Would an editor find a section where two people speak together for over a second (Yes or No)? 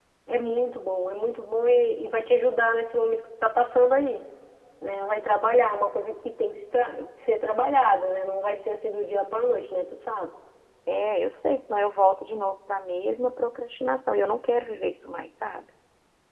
No